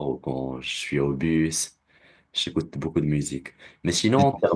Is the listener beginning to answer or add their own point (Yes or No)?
No